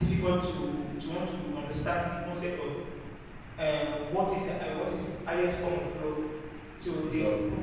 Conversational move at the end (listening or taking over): listening